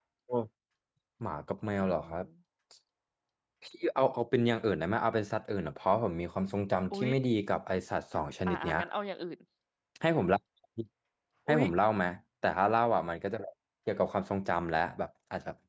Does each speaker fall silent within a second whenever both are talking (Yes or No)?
Yes